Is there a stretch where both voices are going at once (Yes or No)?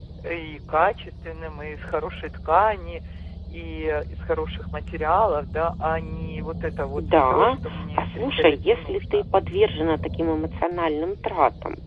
Yes